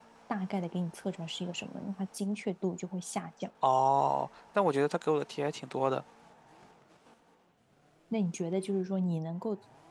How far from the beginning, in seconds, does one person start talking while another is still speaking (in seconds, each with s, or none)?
none